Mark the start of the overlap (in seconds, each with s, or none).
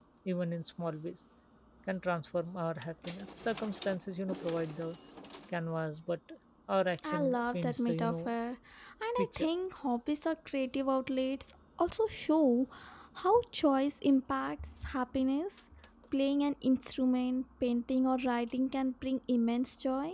7.0 s